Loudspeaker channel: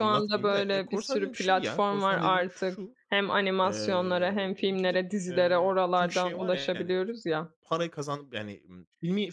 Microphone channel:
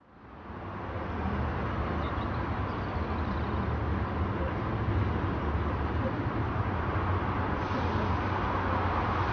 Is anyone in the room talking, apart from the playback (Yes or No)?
No